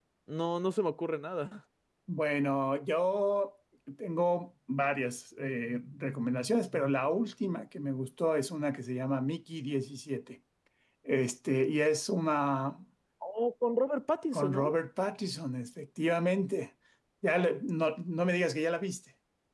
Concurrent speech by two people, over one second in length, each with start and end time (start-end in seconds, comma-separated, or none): none